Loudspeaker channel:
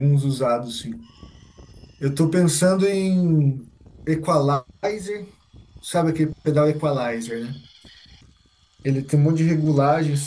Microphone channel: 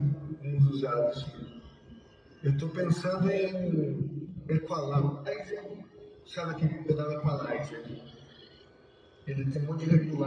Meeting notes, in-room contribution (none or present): none